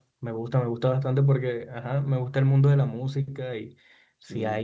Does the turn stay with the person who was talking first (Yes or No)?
Yes